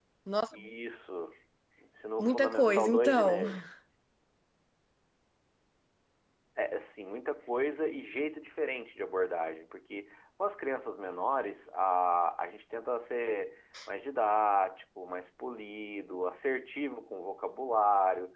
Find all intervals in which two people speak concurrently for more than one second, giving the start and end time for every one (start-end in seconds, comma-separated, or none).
2.2-3.4